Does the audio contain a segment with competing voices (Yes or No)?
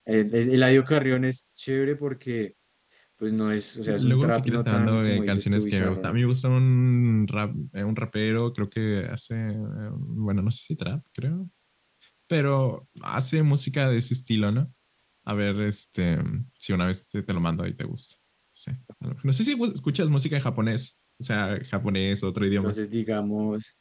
Yes